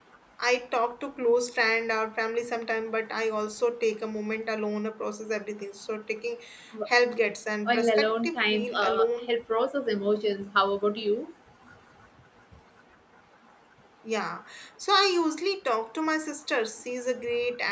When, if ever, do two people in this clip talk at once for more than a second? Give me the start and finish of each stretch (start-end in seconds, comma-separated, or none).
7.7-9.3